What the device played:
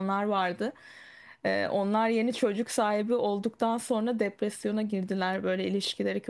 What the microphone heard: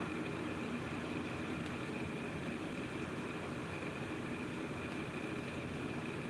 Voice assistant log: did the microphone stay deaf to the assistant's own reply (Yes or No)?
Yes